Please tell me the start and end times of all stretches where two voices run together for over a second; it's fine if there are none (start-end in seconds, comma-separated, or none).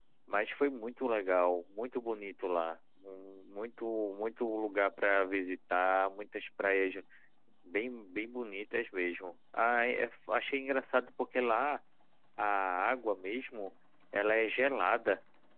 none